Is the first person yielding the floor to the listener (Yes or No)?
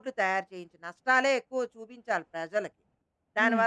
No